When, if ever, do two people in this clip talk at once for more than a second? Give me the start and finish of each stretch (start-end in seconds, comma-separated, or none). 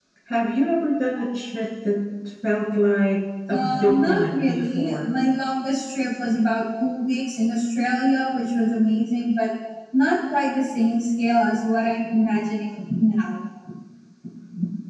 3.5-5.1